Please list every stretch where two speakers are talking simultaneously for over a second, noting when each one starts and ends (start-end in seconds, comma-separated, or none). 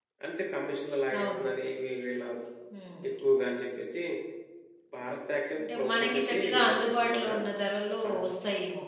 5.6-7.3